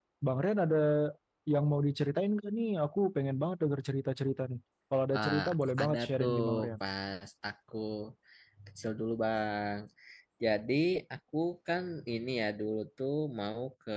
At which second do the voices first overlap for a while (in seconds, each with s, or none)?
5.1 s